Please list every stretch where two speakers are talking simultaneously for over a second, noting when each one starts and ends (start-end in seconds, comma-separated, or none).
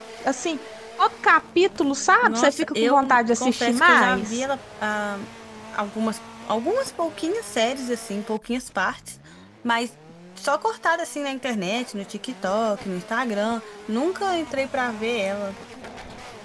2.2-4.4